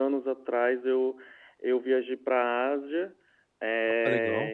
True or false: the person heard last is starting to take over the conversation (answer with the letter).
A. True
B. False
B